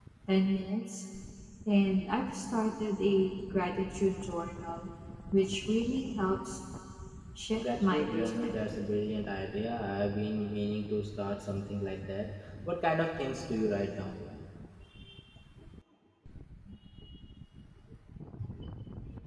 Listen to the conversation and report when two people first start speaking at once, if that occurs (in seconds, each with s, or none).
7.5 s